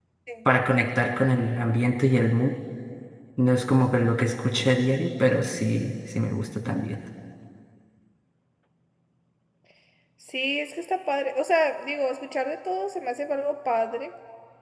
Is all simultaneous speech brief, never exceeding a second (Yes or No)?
Yes